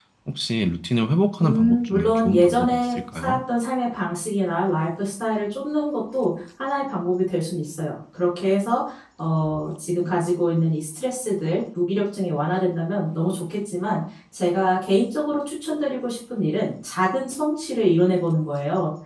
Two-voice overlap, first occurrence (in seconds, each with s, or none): 1.4 s